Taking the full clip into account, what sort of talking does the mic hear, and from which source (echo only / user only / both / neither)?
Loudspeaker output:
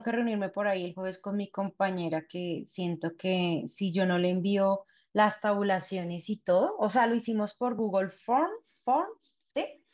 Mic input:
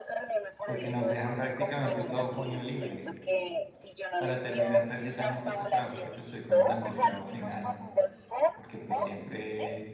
both